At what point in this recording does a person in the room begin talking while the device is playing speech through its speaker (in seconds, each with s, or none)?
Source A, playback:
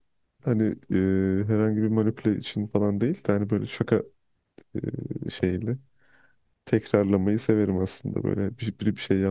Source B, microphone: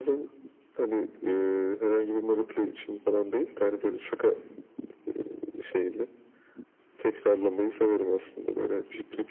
none